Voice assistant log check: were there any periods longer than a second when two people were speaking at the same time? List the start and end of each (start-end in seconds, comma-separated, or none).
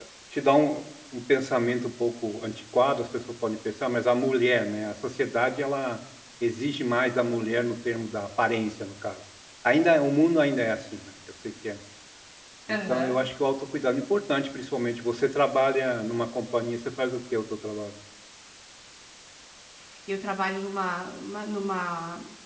none